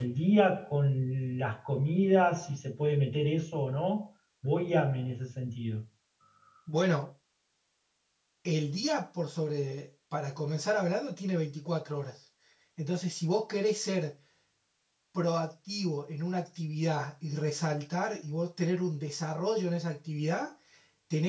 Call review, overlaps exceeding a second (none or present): none